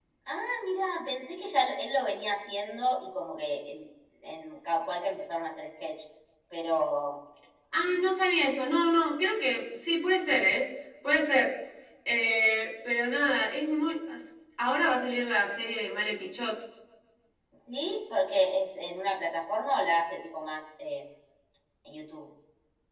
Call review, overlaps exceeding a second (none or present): none